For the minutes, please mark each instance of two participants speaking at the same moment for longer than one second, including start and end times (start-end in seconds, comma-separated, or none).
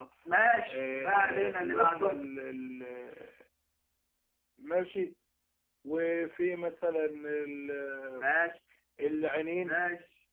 0.7-2.2